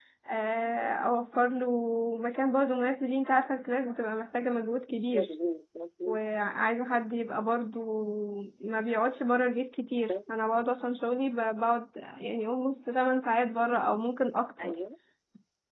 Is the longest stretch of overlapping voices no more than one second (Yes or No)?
Yes